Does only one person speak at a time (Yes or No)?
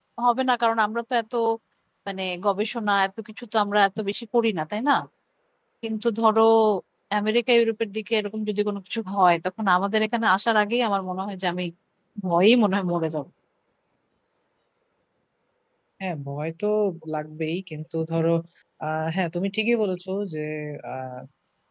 Yes